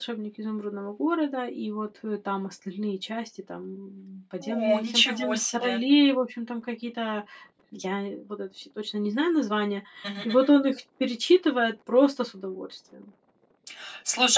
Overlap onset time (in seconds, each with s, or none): 4.4 s